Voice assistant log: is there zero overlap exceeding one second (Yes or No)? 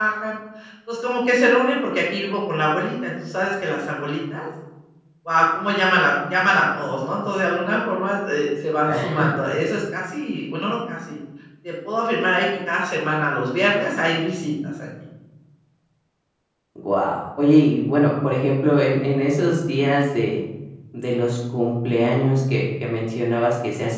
Yes